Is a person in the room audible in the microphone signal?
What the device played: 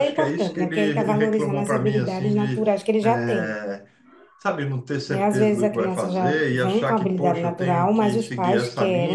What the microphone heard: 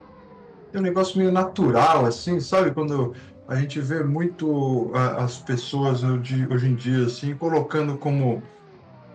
Yes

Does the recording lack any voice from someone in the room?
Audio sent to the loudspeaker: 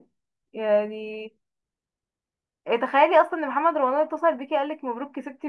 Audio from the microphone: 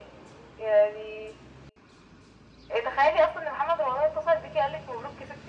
Yes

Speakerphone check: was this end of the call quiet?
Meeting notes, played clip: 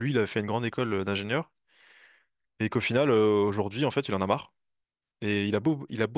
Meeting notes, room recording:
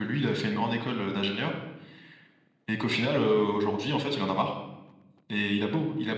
Yes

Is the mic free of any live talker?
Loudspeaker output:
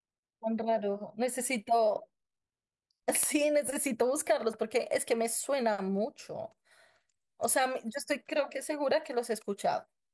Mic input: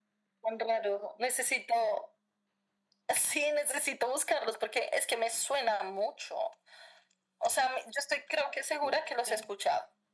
No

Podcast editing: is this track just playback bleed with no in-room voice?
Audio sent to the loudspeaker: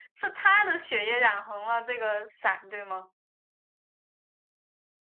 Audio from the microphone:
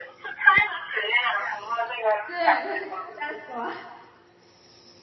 No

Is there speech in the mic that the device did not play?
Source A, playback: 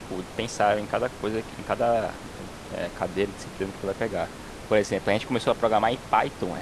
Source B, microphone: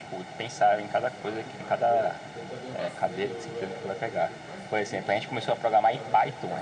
Yes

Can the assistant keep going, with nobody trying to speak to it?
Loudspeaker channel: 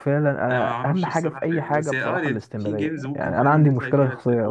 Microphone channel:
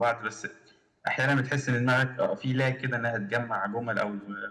No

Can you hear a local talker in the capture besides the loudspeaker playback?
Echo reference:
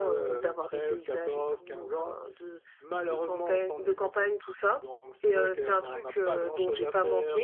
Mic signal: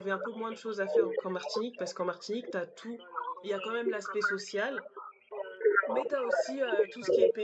Yes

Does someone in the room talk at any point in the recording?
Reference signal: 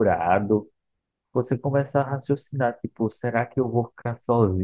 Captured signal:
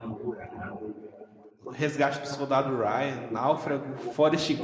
Yes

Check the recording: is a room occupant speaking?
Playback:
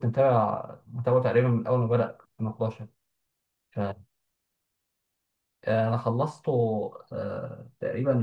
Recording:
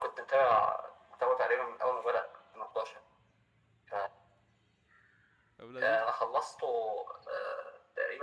Yes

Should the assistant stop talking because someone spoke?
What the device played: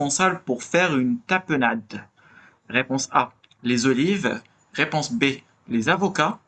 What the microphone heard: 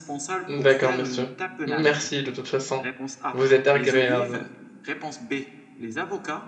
Yes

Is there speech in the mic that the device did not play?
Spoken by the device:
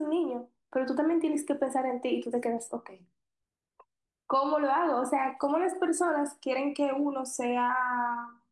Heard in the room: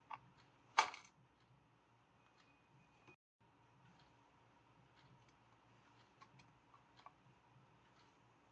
No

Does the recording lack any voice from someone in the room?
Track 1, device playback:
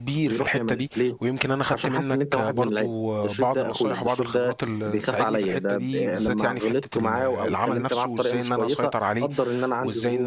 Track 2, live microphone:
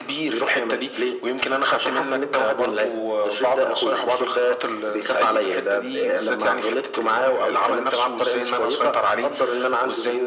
Yes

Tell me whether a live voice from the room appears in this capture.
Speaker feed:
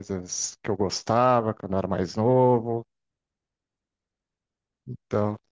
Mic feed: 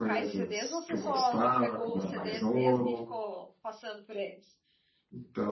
Yes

